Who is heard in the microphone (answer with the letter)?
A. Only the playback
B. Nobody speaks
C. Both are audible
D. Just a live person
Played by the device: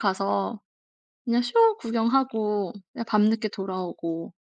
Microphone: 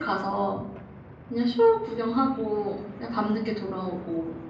A